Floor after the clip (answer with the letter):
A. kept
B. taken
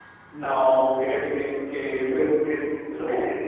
A